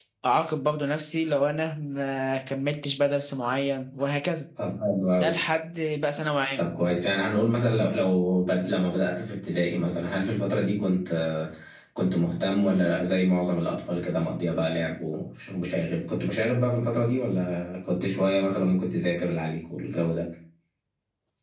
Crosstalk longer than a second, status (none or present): none